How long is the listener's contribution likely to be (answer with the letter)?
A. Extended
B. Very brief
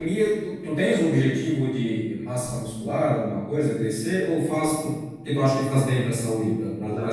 A